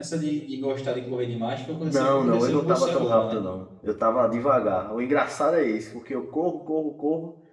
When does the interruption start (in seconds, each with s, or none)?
1.9 s